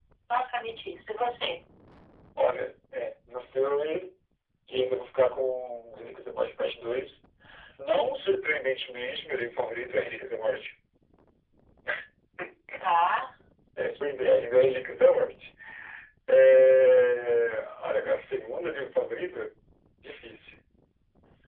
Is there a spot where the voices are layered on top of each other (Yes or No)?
No